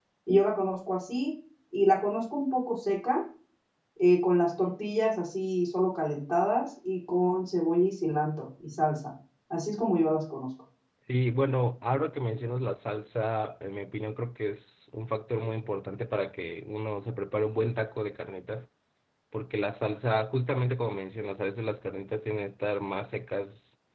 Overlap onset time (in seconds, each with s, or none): none